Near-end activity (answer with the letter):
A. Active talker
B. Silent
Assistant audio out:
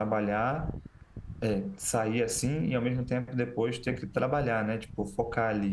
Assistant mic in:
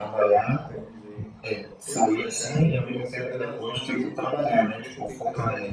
A